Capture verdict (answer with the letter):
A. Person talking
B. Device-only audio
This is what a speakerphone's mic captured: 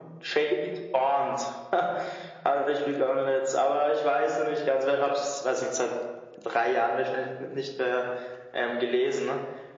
B